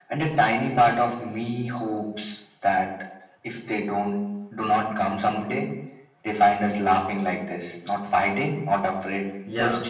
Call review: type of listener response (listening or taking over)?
taking over